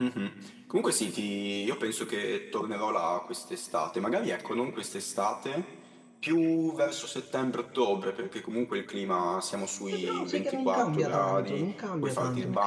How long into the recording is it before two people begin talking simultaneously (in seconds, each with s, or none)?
9.9 s